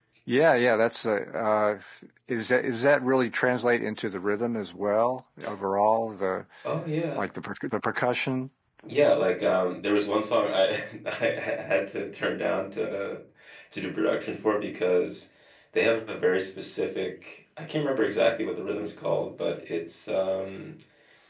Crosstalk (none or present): none